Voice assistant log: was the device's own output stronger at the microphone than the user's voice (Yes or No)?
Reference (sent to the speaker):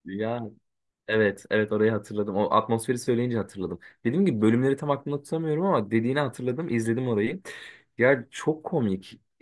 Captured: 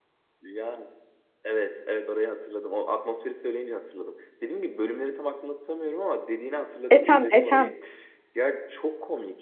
No